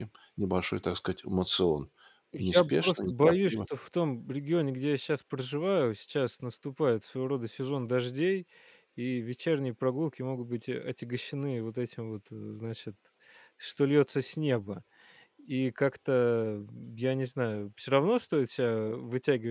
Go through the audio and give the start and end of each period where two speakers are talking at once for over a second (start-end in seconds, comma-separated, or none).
2.4-3.6